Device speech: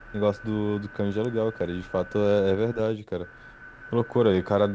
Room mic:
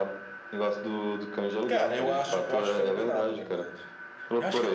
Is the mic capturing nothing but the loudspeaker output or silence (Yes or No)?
No